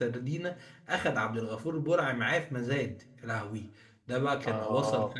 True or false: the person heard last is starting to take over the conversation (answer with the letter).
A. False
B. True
A